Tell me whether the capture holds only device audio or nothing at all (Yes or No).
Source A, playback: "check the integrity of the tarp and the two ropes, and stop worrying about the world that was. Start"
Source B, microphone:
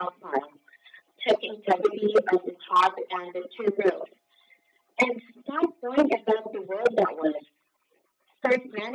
Yes